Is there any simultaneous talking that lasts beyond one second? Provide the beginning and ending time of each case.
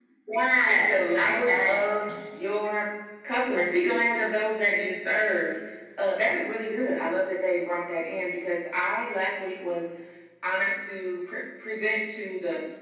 0.6-1.9

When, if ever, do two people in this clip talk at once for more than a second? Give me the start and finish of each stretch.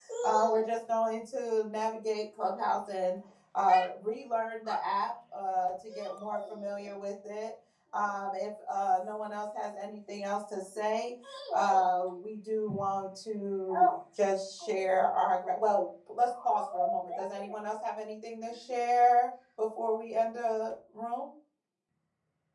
none

